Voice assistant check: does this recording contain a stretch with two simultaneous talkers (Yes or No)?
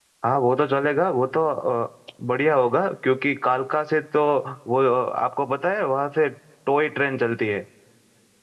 No